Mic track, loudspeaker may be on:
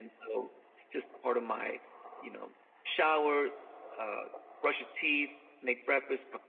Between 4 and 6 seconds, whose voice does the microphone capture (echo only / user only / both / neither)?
echo only